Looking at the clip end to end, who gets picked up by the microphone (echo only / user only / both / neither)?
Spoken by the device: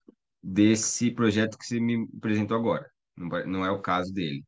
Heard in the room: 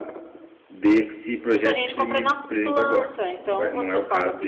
both